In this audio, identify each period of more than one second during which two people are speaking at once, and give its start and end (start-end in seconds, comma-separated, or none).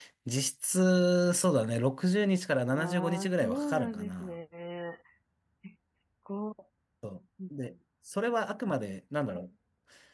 2.7-4.4